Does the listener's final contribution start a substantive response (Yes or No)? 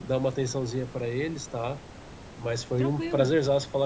No